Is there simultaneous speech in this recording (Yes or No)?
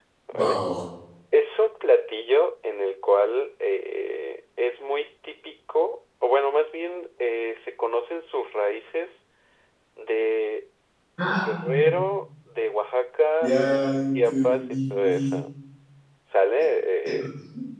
Yes